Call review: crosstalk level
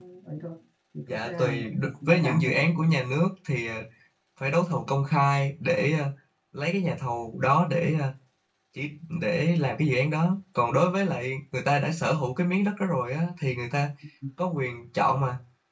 present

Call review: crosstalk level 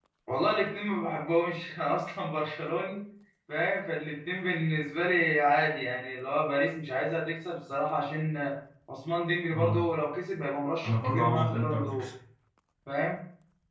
present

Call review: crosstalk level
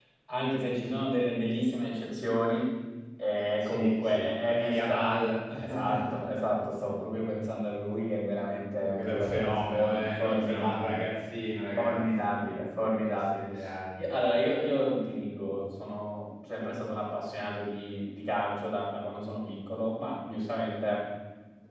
present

